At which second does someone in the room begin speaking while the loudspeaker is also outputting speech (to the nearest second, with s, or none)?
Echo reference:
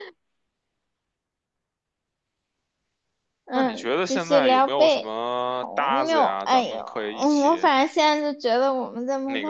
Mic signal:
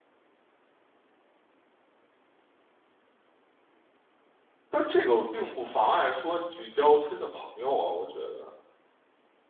5 s